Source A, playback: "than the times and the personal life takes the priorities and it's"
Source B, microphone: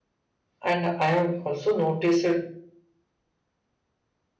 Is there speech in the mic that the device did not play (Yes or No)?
Yes